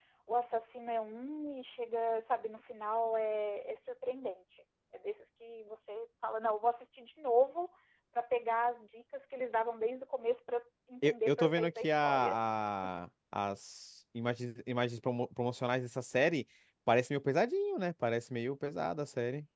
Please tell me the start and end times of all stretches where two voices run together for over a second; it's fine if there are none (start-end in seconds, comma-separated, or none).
11.0-12.4